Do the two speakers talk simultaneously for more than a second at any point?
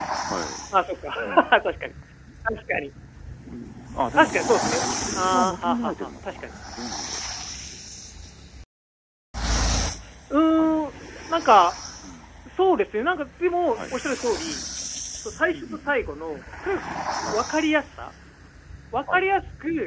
Yes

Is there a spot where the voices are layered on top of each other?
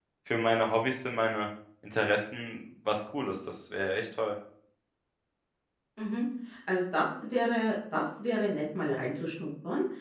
No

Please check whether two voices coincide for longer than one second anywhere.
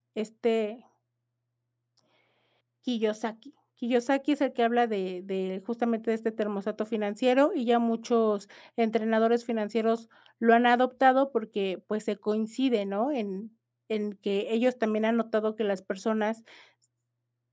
No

